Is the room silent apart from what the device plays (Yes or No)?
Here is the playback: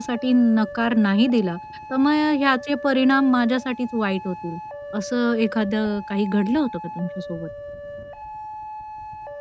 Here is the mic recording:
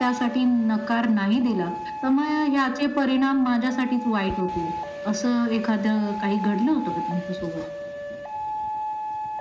Yes